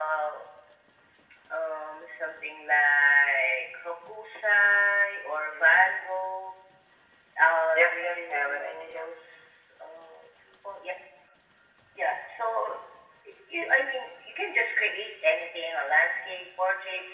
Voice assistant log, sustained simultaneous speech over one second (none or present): present